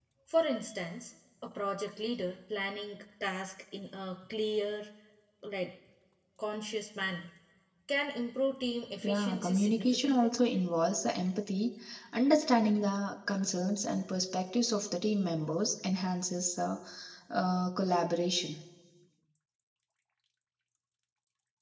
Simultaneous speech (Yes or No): Yes